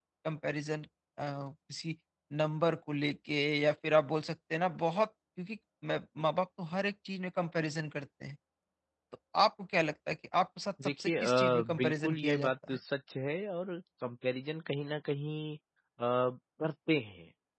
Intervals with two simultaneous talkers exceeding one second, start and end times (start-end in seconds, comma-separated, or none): 10.8-12.8